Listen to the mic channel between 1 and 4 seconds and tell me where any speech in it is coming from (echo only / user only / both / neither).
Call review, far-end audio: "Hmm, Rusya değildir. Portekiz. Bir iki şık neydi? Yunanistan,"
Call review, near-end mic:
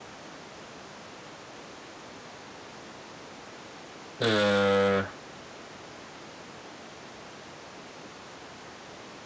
neither